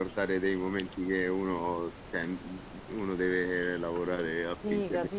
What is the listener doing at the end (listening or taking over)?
taking over